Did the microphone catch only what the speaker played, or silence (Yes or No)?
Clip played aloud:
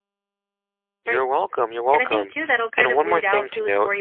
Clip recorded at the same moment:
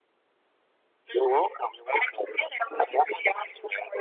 Yes